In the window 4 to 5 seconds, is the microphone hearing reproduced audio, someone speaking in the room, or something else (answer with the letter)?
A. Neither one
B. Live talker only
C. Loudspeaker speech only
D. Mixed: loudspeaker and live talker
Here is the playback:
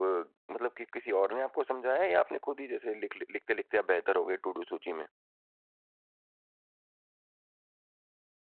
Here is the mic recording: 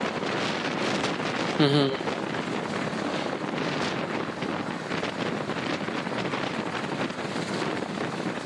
A